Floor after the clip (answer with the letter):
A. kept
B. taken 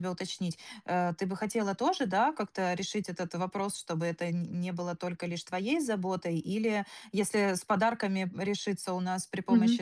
A